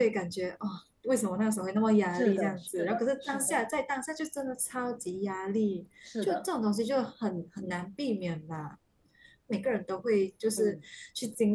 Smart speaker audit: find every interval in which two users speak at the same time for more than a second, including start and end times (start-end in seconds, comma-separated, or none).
2.2-3.6